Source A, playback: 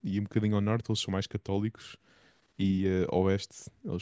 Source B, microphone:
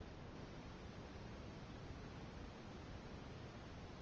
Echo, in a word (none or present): none